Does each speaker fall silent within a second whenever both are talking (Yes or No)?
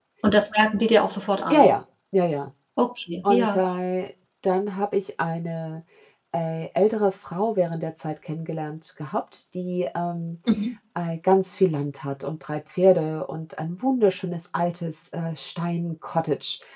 Yes